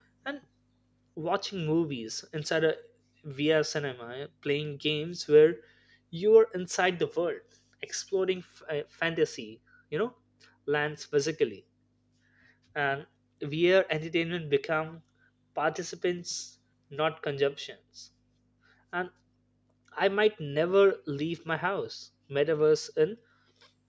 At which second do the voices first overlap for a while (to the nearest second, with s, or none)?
none